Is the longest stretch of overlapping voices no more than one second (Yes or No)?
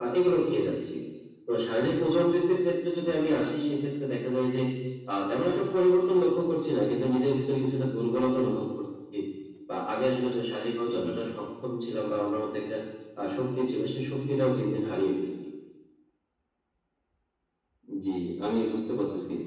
Yes